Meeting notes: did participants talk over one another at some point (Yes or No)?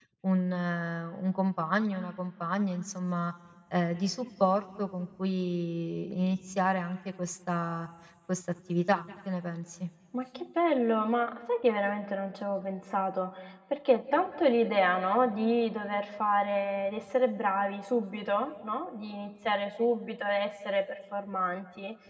No